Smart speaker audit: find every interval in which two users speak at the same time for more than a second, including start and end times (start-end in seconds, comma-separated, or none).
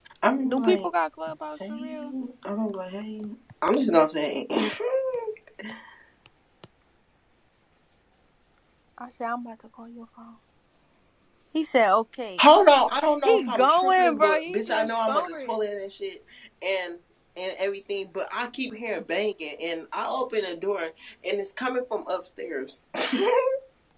13.2-15.5